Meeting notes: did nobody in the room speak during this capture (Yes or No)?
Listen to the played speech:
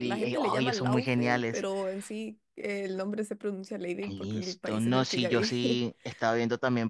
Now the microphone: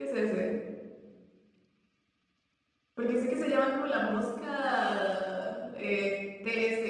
No